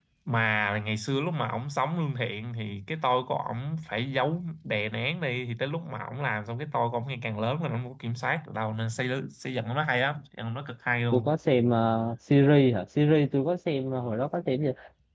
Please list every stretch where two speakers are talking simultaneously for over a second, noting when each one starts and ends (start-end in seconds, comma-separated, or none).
none